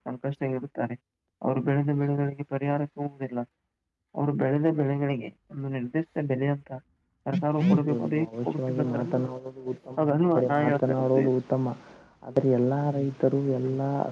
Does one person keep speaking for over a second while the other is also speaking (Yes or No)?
Yes